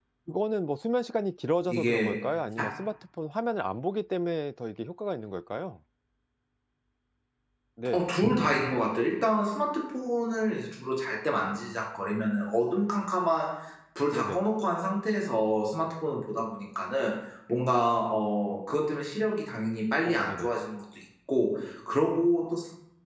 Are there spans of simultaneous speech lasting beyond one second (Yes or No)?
No